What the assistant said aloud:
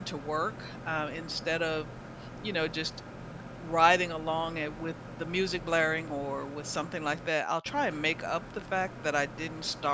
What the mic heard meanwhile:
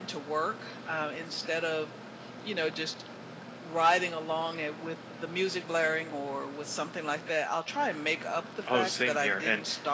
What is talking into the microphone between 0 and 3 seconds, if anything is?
echo only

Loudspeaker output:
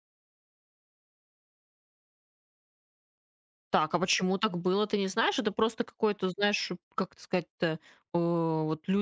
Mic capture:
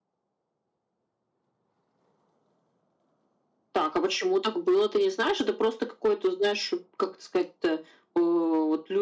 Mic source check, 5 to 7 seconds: echo only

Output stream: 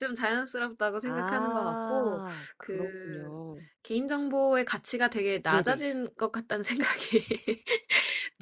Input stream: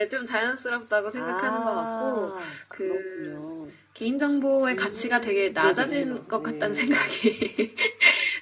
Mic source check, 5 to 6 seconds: both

